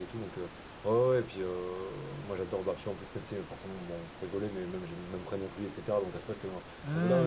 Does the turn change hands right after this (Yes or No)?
No